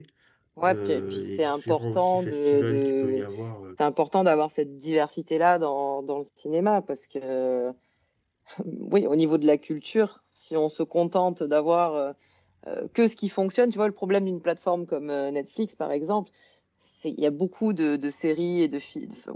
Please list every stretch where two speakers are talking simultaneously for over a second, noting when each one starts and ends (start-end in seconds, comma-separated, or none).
0.6-3.2